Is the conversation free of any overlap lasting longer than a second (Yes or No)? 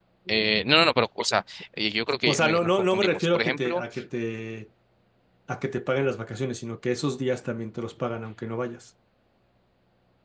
No